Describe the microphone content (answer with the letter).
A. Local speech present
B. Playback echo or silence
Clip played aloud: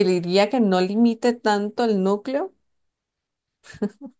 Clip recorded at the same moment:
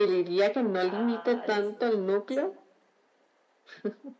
A